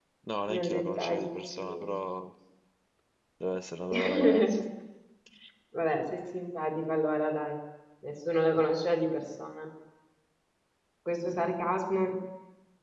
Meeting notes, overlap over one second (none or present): present